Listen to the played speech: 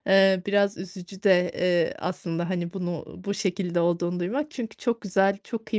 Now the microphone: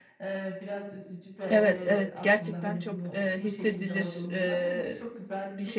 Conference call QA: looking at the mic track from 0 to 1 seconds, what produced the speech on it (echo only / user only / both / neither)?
echo only